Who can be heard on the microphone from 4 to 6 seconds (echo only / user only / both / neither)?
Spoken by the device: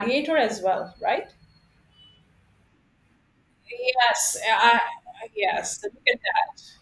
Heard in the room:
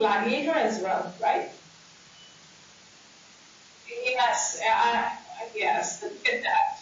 echo only